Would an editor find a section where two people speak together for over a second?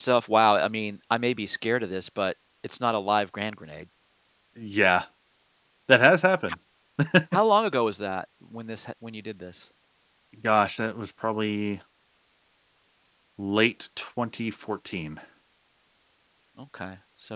No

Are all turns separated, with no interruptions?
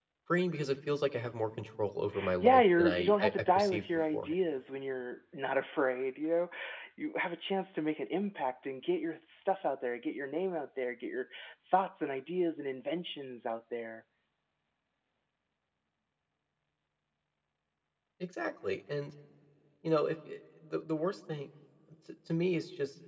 No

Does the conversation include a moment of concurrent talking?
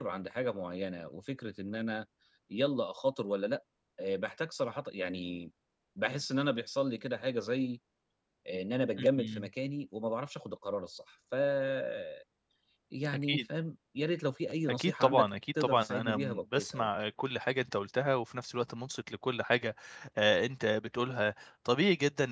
Yes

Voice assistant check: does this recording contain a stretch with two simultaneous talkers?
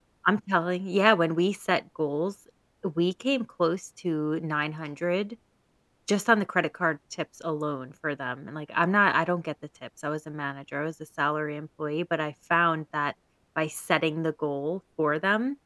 No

